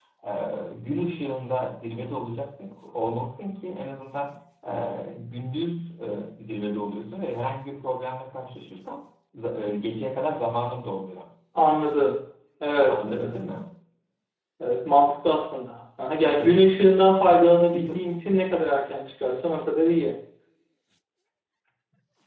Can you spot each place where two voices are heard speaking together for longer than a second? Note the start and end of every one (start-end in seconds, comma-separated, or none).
none